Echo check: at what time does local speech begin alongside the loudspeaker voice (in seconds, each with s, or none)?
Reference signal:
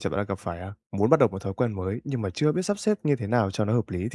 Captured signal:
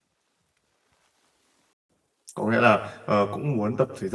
2.3 s